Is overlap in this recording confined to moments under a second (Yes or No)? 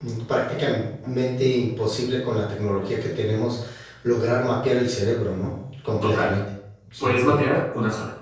Yes